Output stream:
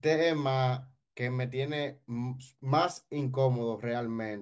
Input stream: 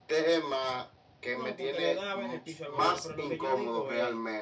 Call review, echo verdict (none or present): present